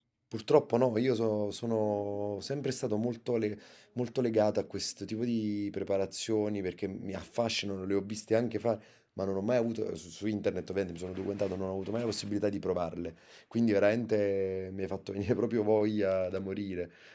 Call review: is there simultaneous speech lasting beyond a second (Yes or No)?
No